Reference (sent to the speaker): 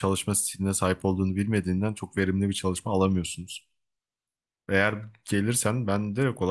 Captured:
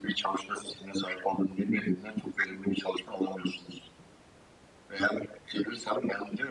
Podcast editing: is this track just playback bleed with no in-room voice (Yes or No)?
Yes